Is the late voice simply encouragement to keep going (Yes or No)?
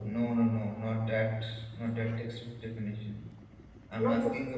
Yes